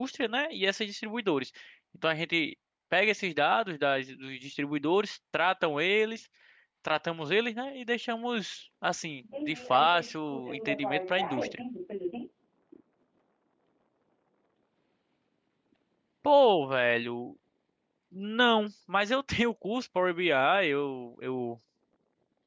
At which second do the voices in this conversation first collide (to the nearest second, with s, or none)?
9 s